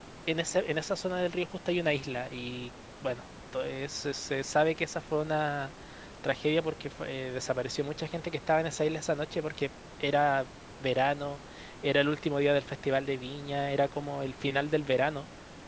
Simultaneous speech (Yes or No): No